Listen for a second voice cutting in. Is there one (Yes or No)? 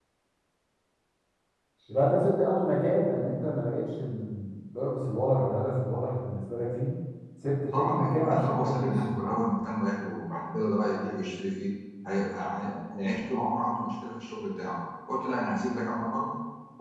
Yes